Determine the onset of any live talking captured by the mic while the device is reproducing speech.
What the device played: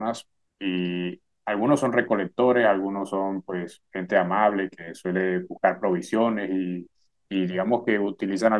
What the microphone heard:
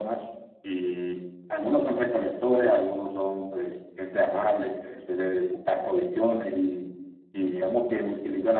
none

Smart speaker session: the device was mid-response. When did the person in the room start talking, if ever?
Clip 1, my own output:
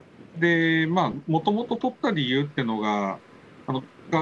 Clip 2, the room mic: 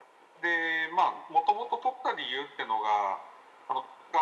none

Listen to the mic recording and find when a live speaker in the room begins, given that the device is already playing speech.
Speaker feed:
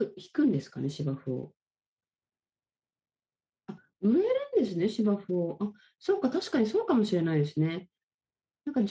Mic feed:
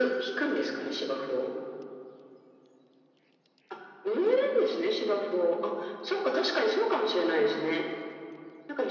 none

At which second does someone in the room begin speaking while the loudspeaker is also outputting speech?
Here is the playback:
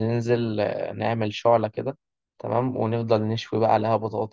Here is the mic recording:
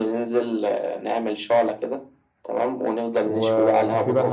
3.2 s

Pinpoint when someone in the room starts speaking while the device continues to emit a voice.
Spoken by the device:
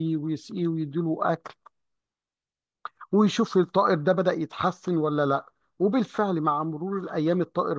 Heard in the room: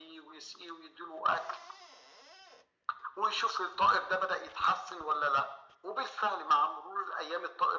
none

